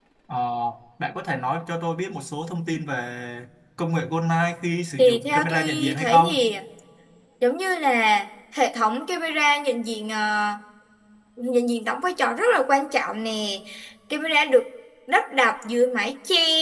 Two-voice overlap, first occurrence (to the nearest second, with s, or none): 5 s